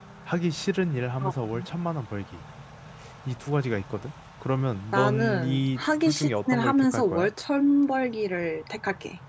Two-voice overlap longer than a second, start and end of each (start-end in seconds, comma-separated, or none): 4.9-7.3